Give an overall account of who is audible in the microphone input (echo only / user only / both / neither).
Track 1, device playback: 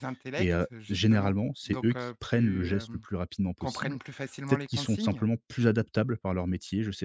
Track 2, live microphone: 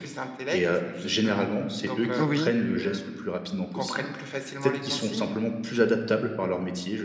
both